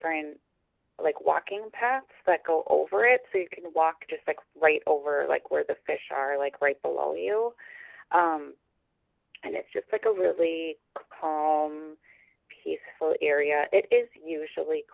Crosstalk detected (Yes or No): No